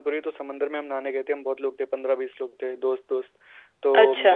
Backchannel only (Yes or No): Yes